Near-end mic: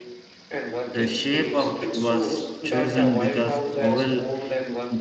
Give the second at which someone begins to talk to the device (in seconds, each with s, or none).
0.9 s